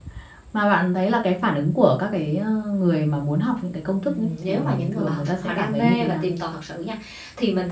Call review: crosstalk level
present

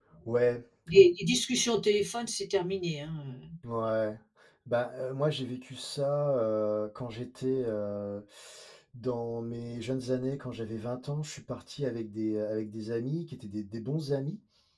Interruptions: none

